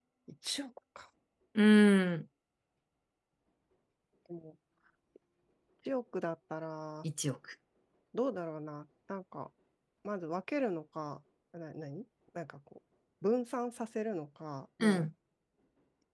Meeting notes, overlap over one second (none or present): none